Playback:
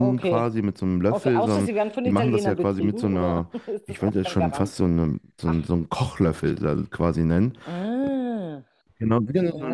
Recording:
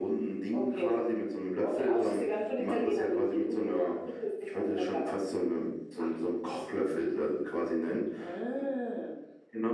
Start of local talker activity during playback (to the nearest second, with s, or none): none